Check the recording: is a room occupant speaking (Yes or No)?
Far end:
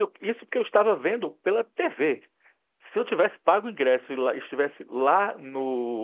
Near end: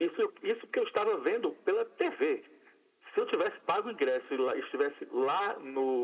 No